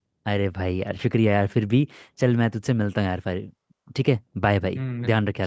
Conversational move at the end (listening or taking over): taking over